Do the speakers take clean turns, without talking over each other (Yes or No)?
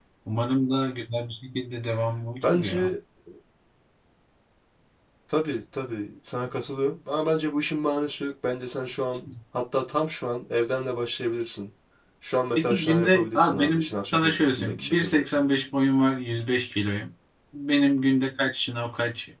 No